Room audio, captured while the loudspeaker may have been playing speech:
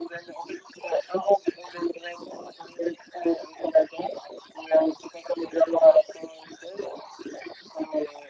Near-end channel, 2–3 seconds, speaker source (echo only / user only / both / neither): echo only